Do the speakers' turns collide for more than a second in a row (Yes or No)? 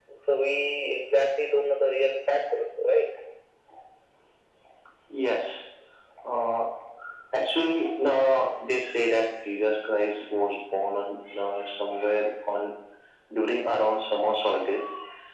No